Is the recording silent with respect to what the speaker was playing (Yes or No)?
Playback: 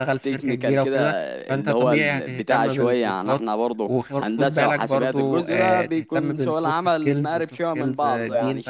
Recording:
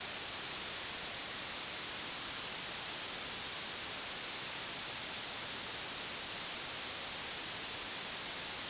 Yes